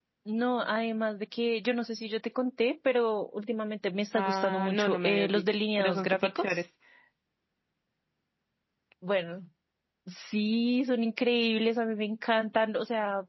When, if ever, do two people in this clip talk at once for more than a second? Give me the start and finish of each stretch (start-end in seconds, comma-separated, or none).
4.1-6.6